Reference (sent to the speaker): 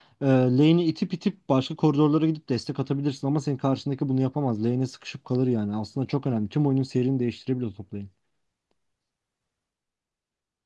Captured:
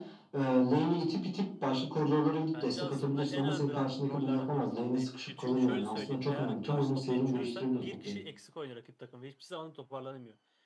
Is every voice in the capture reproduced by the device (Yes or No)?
No